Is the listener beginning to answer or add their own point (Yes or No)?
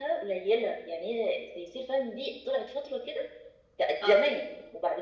No